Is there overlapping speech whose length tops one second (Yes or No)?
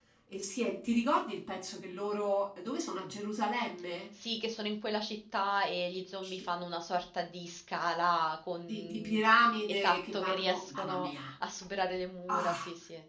Yes